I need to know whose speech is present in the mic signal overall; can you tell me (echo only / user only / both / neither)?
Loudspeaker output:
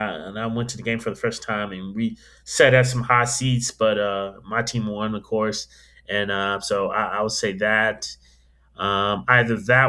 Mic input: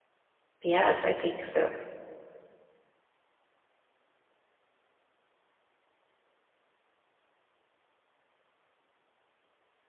user only